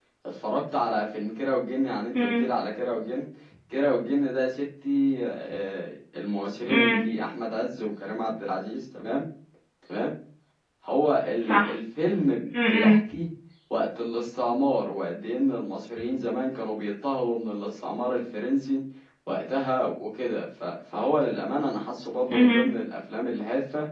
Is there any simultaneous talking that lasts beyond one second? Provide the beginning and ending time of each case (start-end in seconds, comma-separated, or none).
none